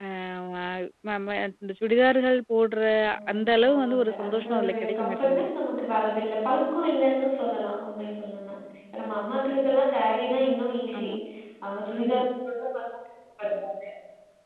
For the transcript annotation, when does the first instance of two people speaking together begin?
3.3 s

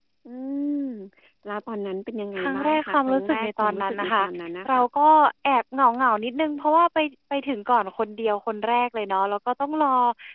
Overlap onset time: 2.4 s

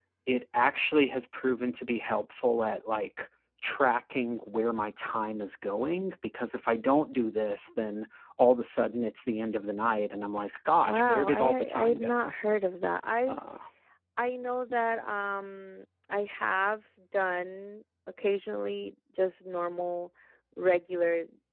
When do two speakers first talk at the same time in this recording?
10.8 s

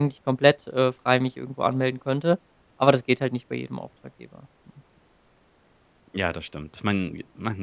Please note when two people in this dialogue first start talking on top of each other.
none

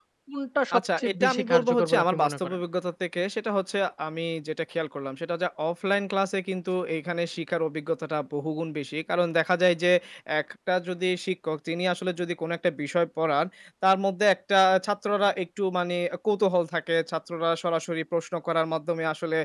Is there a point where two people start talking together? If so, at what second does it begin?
0.8 s

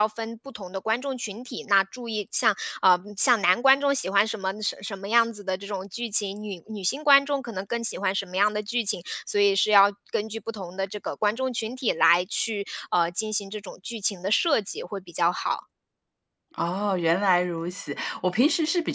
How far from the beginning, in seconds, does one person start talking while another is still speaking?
none

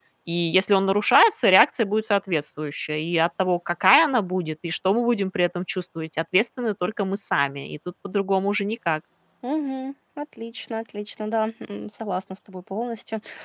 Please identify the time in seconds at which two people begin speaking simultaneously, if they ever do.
none

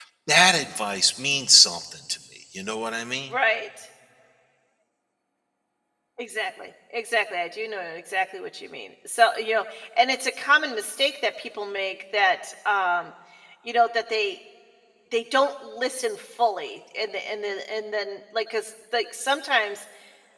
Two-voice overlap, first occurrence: none

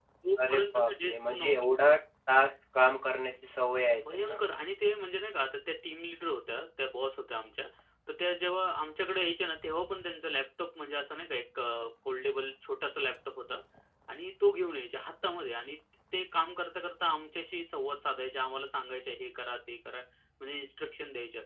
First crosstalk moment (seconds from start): 0.5 s

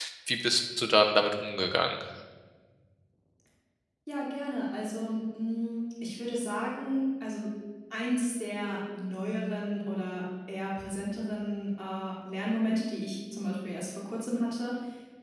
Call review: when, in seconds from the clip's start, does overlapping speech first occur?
none

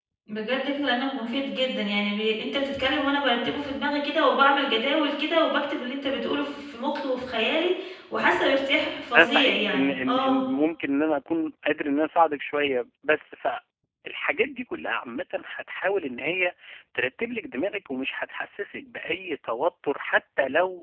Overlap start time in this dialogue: 9.1 s

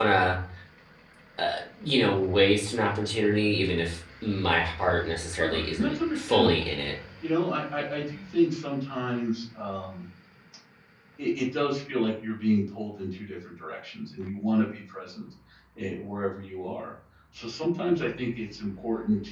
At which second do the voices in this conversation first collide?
5.3 s

